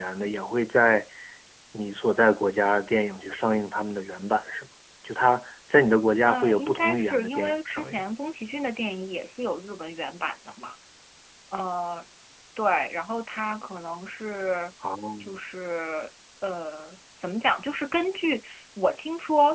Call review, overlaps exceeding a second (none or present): present